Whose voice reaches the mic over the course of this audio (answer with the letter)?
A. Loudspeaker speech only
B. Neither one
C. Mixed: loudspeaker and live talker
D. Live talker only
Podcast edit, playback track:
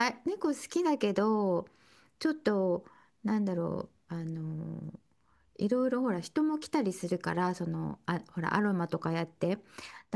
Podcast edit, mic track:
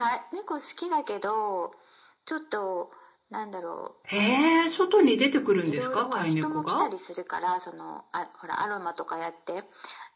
C